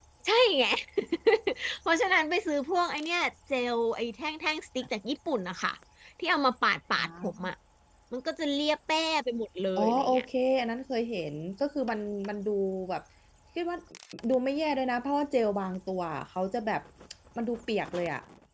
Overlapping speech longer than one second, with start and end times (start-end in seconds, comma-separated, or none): none